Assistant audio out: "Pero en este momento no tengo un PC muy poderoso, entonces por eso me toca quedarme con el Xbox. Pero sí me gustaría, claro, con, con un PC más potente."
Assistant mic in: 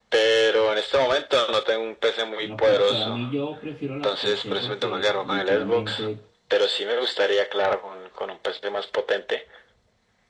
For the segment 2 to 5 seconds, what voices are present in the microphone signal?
both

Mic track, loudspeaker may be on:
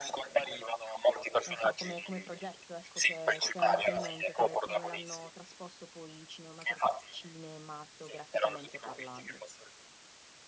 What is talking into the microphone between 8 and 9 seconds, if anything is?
both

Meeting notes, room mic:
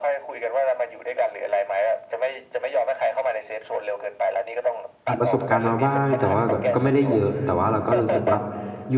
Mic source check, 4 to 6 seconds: both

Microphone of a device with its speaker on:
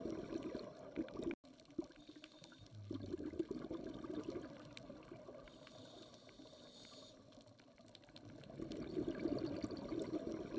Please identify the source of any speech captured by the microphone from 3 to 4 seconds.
neither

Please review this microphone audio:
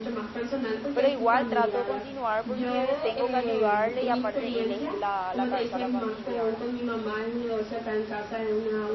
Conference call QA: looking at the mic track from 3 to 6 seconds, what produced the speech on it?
both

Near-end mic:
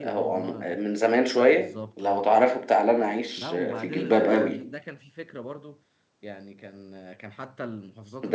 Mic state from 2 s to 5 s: both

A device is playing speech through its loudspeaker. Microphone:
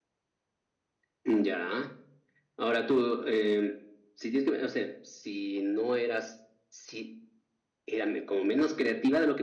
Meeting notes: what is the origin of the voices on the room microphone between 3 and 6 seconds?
echo only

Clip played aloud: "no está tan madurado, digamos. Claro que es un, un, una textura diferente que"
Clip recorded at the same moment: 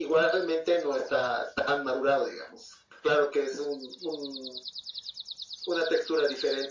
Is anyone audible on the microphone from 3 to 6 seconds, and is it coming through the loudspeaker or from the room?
echo only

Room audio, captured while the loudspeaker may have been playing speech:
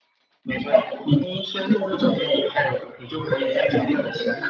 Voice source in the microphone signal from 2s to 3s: echo only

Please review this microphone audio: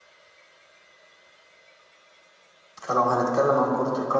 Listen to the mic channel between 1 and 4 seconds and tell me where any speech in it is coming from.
user only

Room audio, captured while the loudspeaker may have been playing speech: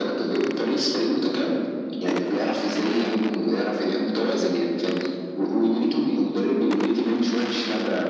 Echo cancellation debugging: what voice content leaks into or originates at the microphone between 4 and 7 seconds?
echo only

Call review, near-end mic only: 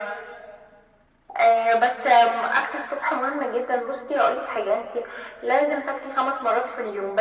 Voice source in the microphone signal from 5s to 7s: echo only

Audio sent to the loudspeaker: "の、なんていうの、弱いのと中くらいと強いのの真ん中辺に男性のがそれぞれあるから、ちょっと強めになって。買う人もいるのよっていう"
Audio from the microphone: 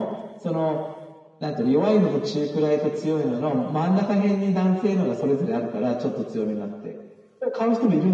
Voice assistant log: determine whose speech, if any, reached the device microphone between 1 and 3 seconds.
echo only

